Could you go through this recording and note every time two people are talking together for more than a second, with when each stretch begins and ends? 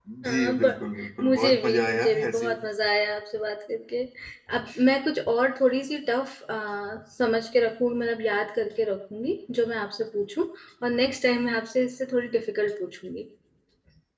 1.2-2.5

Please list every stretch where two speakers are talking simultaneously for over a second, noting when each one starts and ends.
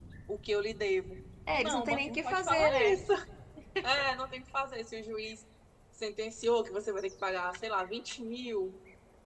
1.5-2.9

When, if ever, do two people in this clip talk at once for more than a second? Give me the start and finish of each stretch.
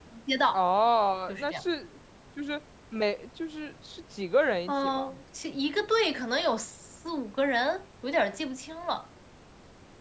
none

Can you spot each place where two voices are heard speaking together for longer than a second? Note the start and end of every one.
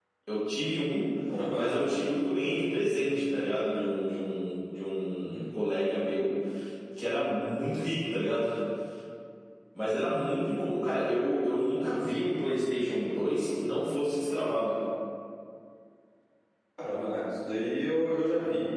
none

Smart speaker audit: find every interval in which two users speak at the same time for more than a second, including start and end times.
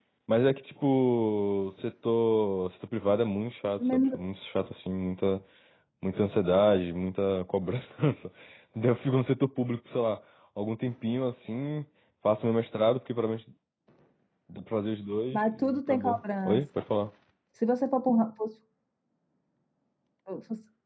15.3-16.6

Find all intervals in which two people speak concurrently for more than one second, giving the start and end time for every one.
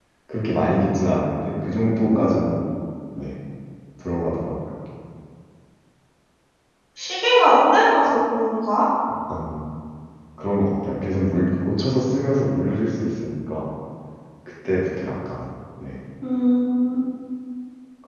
none

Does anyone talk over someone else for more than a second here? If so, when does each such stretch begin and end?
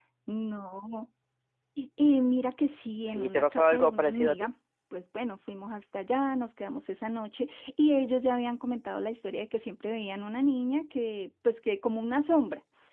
3.0-4.5

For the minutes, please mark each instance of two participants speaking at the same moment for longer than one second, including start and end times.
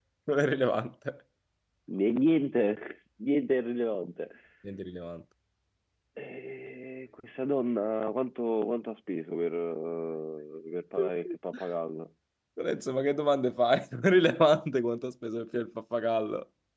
none

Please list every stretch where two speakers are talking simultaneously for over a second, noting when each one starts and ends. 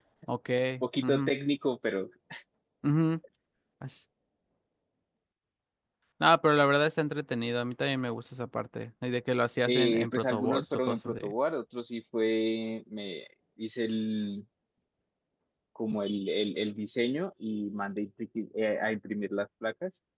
9.7-11.3

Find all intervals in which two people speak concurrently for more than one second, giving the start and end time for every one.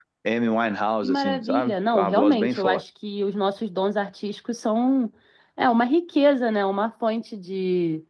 1.0-2.8

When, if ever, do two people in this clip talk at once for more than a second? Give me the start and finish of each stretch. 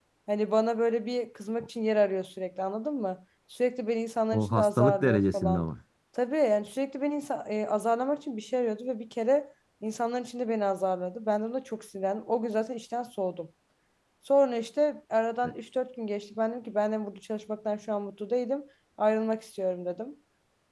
4.3-5.7

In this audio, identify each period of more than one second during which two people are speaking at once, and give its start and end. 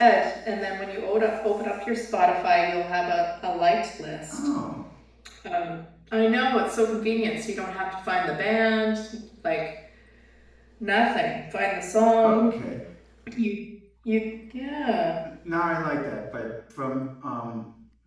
none

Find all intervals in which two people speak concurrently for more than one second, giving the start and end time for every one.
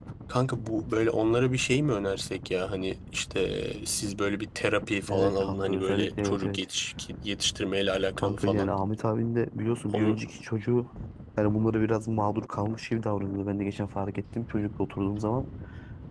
5.1-6.6

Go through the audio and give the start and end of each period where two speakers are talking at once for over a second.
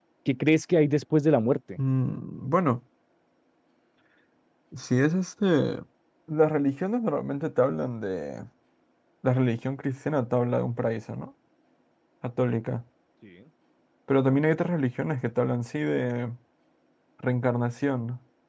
none

